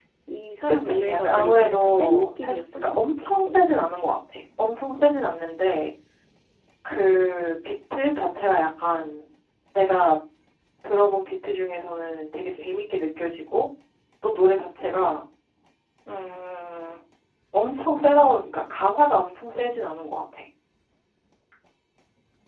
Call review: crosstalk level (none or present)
present